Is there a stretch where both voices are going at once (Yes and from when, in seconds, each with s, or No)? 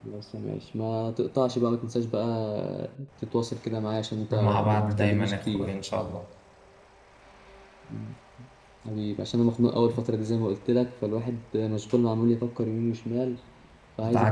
Yes, from 4.3 s